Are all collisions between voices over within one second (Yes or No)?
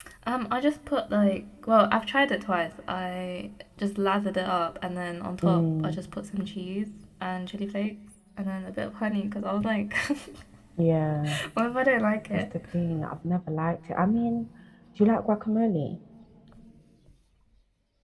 Yes